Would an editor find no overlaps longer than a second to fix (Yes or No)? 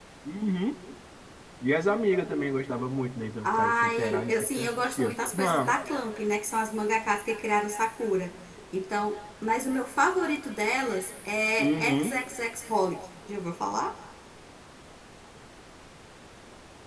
No